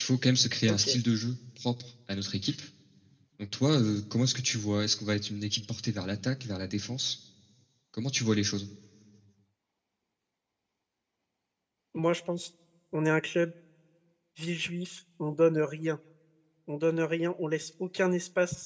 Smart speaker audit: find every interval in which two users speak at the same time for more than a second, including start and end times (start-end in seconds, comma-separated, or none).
none